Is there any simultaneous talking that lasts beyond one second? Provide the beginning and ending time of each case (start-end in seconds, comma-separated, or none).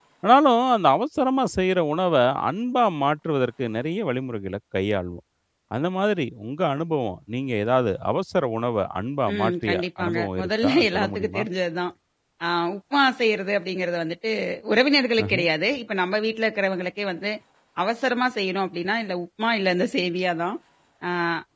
9.3-11.4